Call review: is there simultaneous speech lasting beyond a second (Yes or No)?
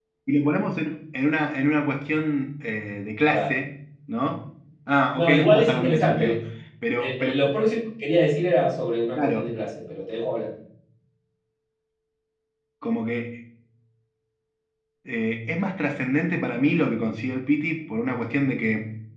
Yes